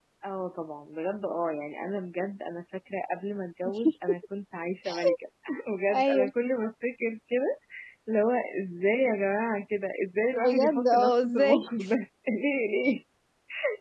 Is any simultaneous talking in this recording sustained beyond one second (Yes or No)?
Yes